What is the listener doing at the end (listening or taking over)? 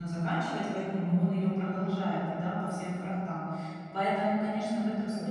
listening